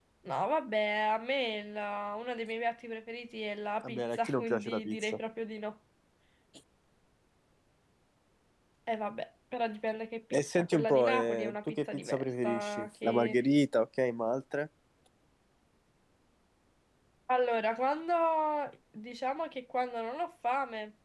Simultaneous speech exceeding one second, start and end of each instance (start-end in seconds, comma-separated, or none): 3.8-5.2, 10.3-13.4